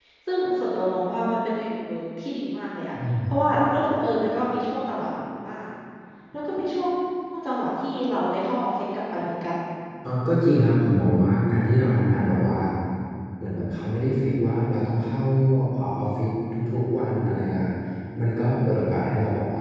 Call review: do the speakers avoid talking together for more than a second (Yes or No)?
Yes